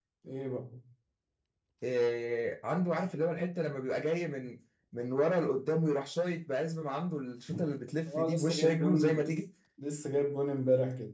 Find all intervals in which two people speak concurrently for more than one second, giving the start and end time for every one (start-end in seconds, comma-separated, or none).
8.1-9.4